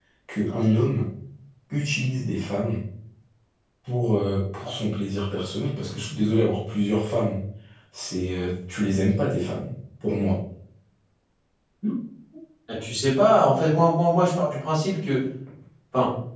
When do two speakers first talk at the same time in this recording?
none

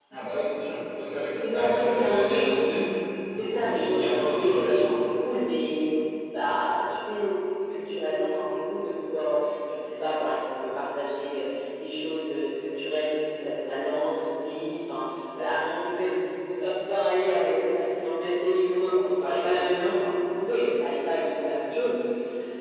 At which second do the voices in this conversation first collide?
1.3 s

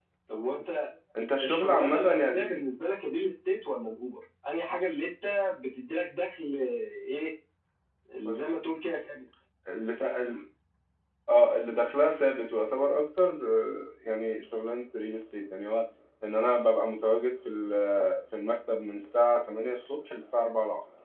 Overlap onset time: 1.4 s

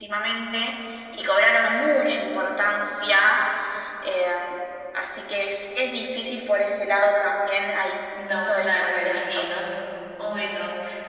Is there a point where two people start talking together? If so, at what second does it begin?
8.2 s

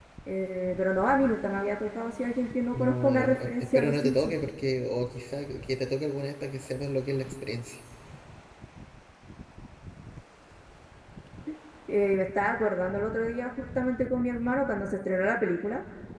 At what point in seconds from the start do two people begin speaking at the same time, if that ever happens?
2.7 s

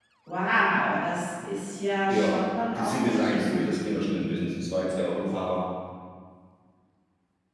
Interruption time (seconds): 2.1 s

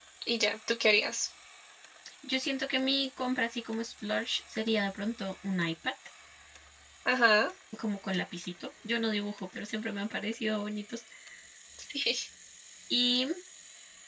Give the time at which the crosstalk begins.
none

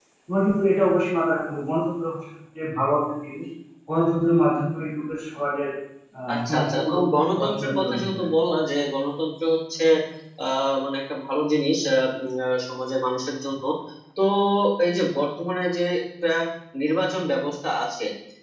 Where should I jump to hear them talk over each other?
6.3 s

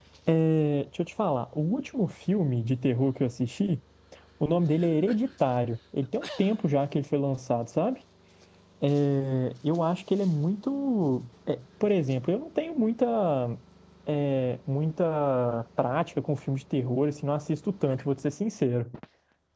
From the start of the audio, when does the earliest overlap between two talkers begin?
none

